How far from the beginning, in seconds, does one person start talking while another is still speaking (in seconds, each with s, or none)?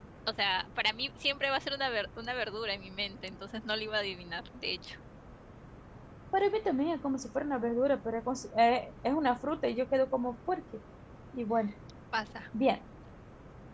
none